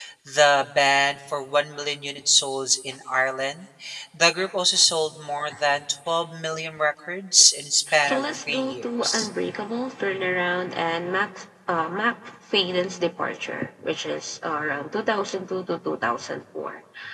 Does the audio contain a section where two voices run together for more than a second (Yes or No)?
Yes